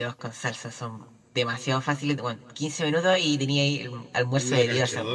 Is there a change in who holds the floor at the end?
Yes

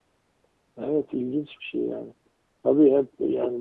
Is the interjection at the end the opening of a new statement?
No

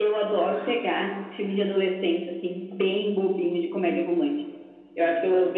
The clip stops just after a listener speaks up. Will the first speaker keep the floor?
Yes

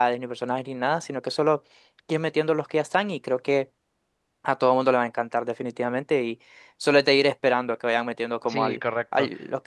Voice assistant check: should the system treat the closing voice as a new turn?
Yes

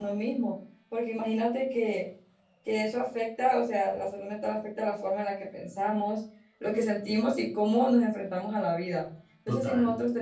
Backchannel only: Yes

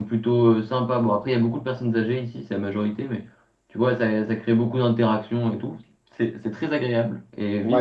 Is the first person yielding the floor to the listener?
Yes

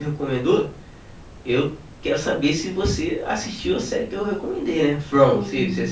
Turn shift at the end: Yes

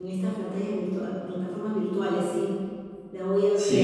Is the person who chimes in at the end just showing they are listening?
No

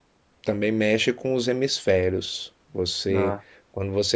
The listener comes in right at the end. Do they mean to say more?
No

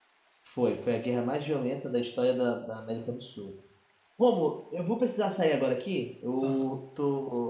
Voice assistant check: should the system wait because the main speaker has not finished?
Yes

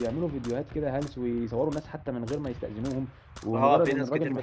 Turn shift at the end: Yes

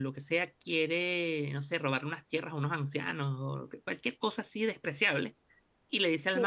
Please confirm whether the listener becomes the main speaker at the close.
No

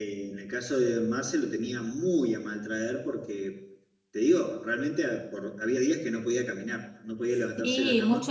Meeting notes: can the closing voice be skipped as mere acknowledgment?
No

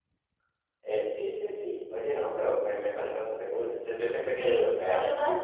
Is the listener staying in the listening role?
No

